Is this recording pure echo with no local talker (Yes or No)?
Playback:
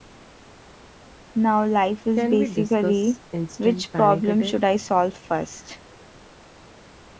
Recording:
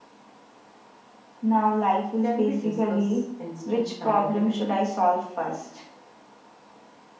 Yes